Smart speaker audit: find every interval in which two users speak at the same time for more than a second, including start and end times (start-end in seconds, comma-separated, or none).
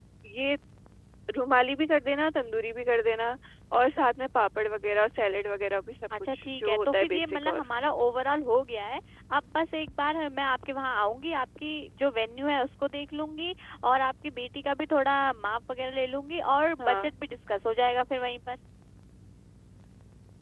6.3-7.6